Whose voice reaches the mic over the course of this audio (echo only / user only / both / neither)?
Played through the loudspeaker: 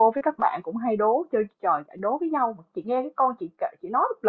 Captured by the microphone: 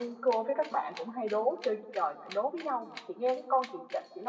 echo only